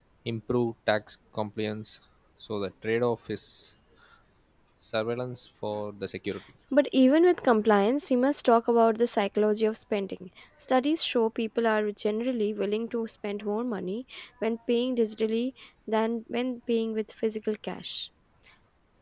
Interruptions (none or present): none